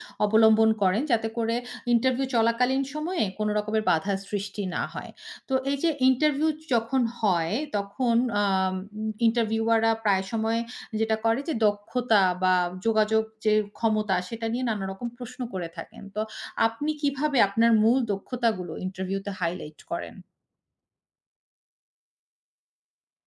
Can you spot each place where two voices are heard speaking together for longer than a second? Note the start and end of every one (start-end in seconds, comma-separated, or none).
none